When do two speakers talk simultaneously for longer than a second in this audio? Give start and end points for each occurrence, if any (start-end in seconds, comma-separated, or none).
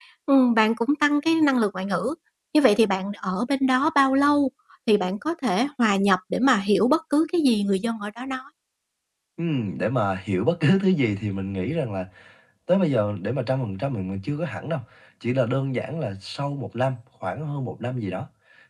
none